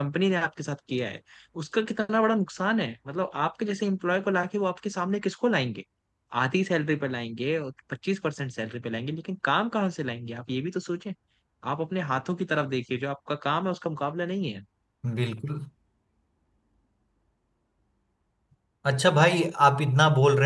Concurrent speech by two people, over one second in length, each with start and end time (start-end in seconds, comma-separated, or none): none